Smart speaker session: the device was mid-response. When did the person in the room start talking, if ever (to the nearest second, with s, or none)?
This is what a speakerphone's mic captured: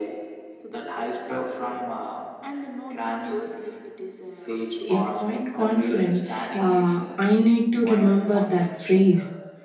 5 s